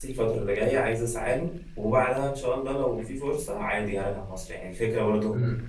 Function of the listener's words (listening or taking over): listening